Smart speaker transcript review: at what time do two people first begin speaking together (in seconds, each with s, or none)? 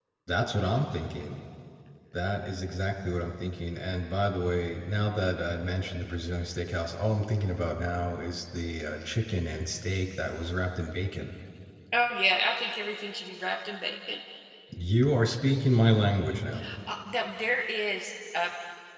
none